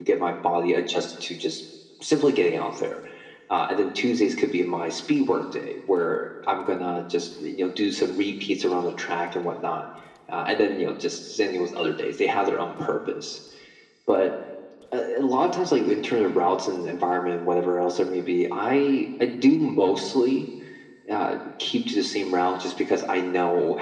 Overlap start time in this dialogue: none

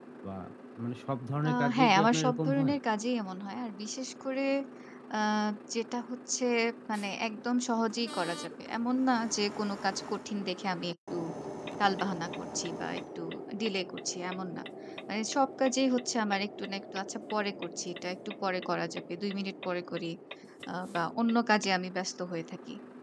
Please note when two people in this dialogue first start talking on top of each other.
1.5 s

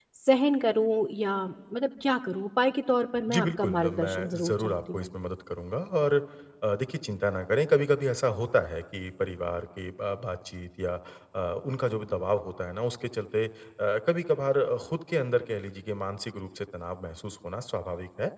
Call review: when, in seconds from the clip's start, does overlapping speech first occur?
3.3 s

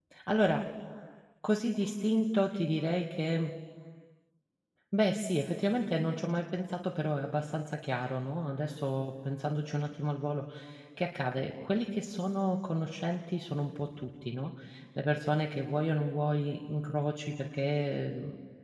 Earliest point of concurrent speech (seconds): none

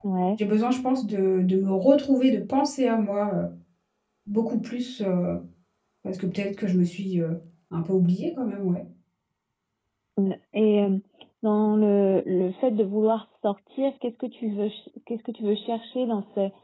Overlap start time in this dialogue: none

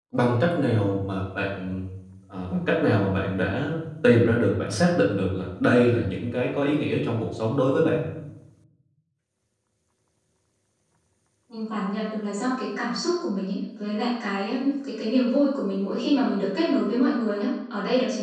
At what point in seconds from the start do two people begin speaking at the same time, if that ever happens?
none

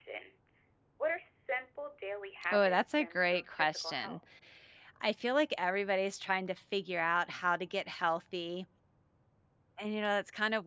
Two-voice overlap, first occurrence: 2.5 s

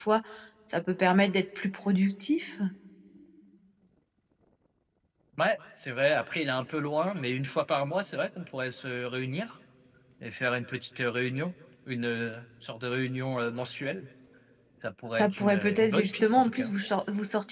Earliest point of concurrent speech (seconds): 15.2 s

